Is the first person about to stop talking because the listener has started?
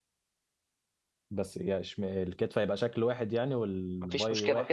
Yes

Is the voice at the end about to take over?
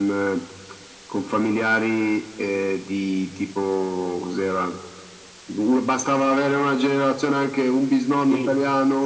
Yes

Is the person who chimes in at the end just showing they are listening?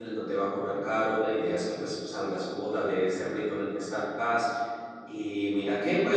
Yes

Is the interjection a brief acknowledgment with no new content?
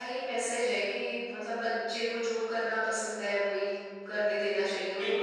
No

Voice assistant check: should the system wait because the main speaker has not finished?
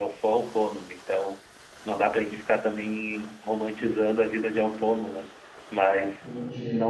Yes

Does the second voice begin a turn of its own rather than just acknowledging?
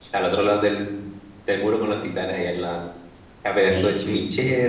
Yes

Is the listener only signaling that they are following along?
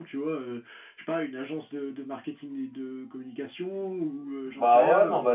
No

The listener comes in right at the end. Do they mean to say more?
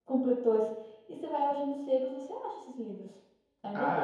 Yes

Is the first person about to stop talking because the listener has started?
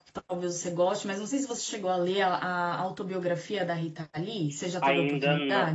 Yes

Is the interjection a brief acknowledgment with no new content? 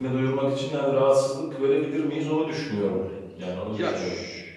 No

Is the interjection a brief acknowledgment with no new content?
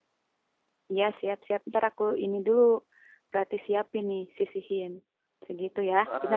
No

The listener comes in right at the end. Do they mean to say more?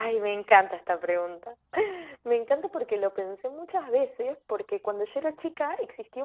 No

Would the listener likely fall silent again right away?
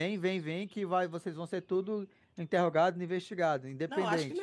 No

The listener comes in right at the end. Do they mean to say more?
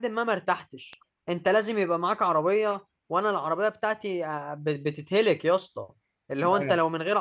No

